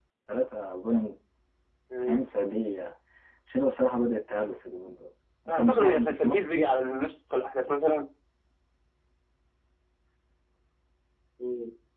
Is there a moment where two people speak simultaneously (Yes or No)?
Yes